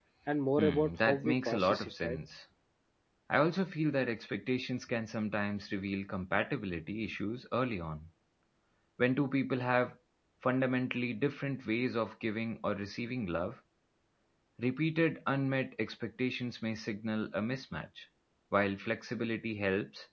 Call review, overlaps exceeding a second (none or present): present